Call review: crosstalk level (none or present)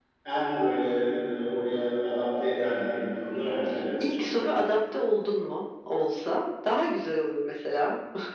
none